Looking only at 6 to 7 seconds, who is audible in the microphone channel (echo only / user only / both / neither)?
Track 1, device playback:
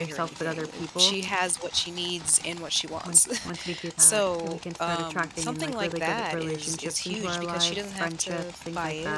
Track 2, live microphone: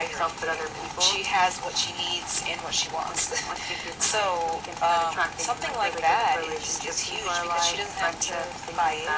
echo only